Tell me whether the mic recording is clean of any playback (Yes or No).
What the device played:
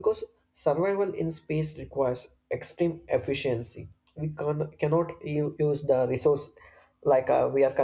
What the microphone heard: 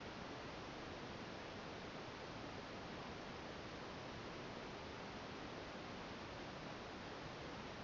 Yes